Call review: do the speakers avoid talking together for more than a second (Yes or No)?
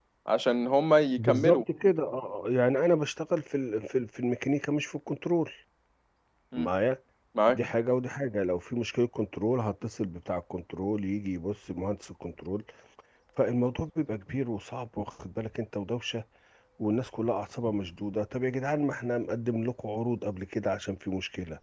Yes